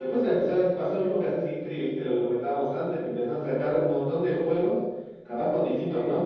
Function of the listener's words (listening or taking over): listening